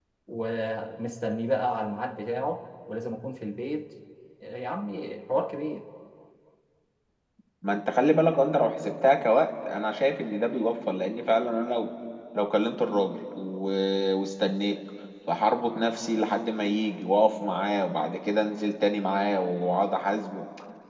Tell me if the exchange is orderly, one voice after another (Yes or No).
Yes